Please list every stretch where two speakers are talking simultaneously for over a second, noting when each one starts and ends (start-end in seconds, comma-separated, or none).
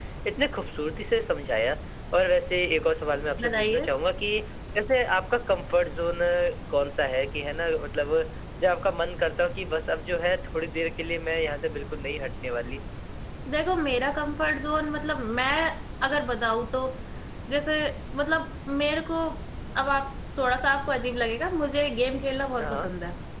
none